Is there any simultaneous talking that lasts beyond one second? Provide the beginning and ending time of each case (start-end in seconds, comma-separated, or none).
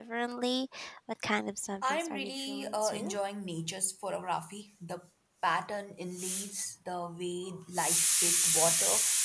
1.8-3.2